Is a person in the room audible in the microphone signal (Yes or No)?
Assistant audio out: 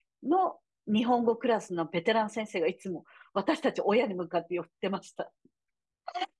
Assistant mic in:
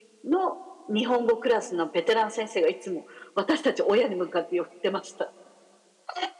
No